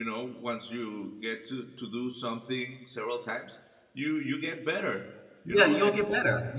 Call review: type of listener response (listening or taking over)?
taking over